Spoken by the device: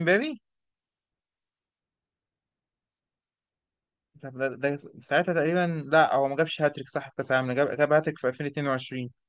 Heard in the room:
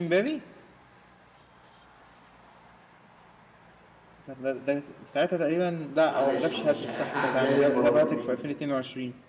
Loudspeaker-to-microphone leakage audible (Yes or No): Yes